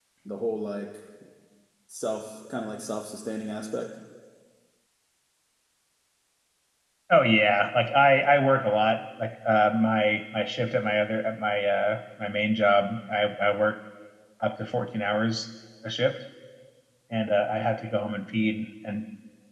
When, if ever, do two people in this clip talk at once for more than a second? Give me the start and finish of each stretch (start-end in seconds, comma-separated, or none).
none